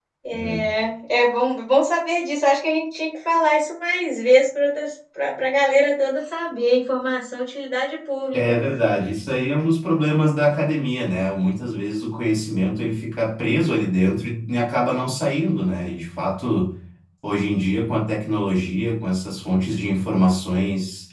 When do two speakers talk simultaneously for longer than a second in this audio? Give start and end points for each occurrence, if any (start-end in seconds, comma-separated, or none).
none